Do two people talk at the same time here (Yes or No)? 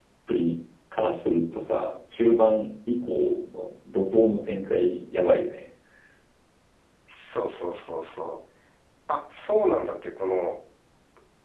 No